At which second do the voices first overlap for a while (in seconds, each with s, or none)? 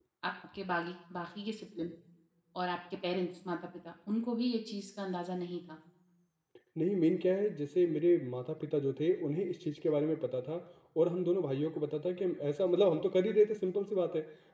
none